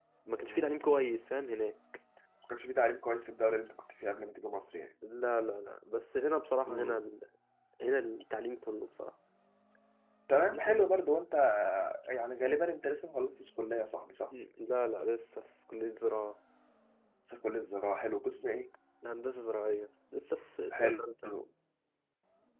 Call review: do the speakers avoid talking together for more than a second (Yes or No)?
Yes